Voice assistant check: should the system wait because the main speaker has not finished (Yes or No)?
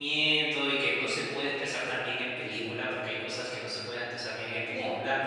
Yes